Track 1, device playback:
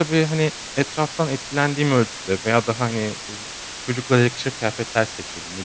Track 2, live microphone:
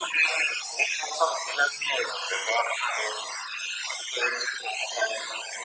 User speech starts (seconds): none

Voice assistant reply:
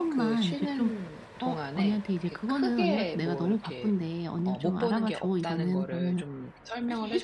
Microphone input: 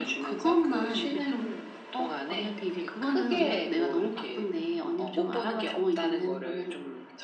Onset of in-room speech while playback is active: none

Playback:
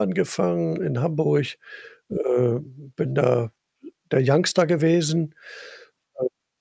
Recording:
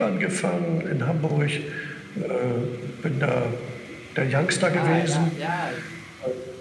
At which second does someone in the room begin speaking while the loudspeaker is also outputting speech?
5 s

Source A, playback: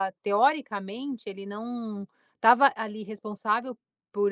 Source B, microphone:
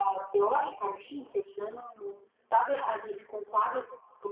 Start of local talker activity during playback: none

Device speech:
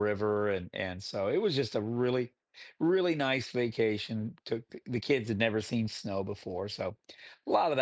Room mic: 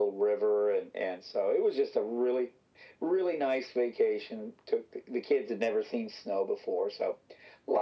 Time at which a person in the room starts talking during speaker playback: none

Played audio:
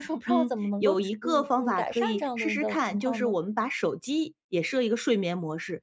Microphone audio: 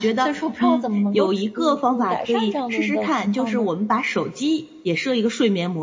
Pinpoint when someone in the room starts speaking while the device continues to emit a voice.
none

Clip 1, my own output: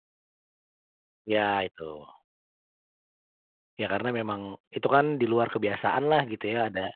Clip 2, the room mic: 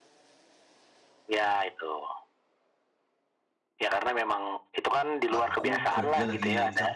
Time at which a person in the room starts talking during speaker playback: 5 s

